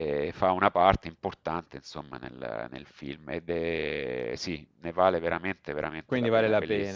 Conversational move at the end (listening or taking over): taking over